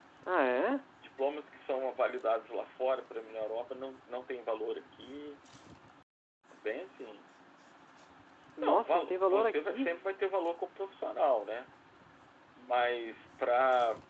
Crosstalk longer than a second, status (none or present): present